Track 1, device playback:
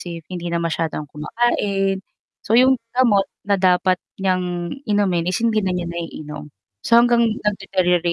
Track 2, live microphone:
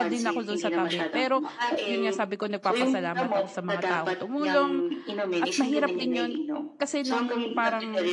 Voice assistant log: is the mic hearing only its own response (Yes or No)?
No